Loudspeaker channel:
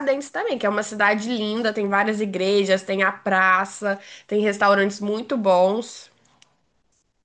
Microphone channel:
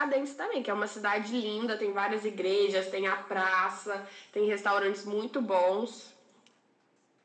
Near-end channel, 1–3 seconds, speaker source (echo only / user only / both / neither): echo only